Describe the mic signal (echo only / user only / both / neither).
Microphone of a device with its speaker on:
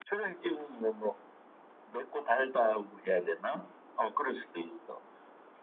echo only